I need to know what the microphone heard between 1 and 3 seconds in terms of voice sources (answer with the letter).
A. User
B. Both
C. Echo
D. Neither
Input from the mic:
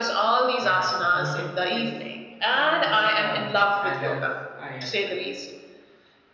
B